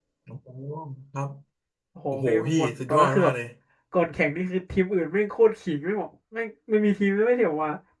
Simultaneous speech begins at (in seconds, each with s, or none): 2.1 s